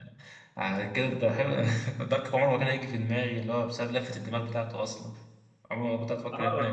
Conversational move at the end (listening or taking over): taking over